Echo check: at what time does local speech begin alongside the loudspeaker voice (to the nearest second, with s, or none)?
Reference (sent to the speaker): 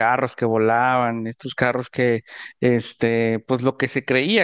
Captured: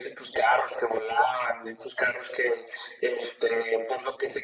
none